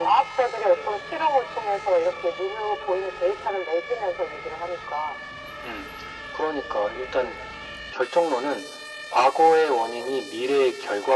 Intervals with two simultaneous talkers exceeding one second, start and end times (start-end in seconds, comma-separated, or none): none